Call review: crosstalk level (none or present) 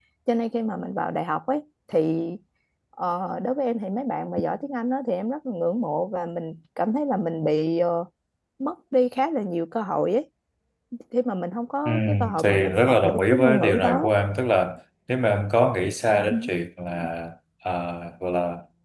present